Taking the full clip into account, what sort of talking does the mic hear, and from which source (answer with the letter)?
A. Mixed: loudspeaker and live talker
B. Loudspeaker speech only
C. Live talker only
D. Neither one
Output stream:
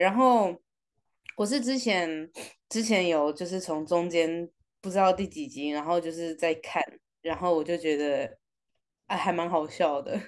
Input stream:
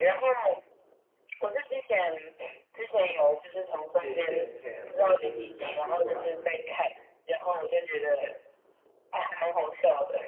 A